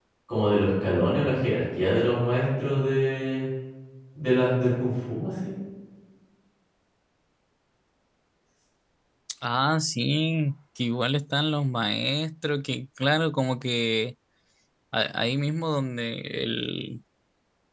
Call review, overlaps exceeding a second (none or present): none